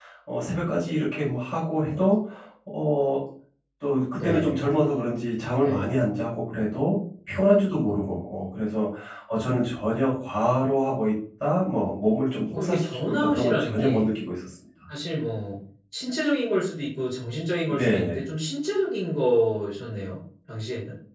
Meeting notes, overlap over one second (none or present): present